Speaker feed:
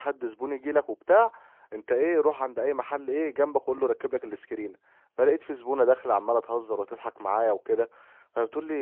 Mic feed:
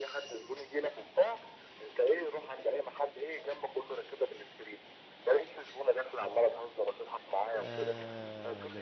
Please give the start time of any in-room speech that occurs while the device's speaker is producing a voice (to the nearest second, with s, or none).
8 s